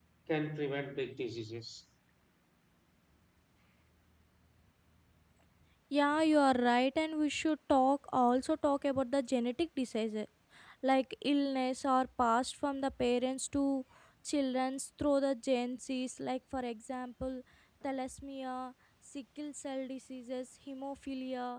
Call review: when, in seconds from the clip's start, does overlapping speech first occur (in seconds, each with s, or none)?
none